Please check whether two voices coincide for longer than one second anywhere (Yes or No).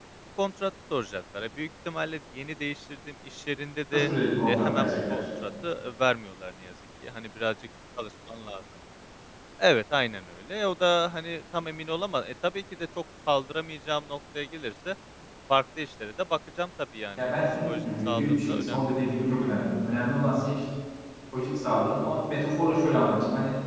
Yes